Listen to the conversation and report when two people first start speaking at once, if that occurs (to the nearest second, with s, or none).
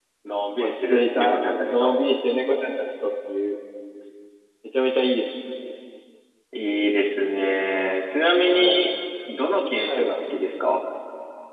1 s